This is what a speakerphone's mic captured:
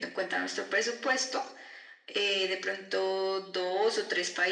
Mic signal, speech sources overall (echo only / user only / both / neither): echo only